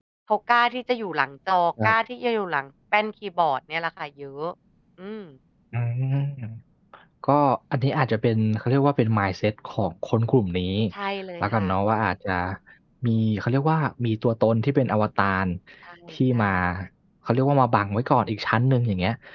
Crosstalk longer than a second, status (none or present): none